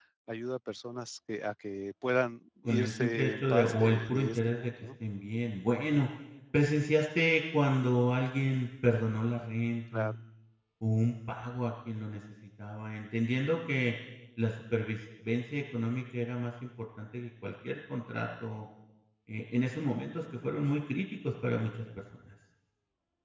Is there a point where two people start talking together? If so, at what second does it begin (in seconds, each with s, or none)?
2.6 s